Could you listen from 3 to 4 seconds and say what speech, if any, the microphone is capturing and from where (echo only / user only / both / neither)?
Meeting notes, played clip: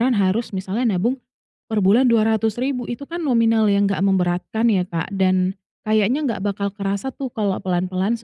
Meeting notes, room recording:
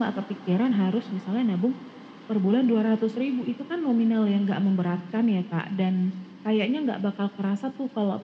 echo only